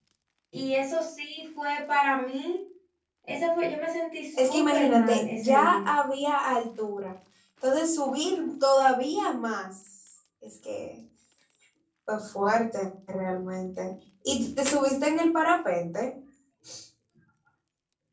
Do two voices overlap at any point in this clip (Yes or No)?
Yes